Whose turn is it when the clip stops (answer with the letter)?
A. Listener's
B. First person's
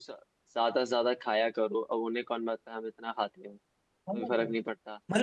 A